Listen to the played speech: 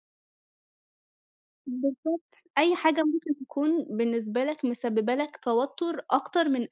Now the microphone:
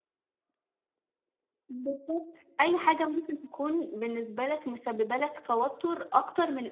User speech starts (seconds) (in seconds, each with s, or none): none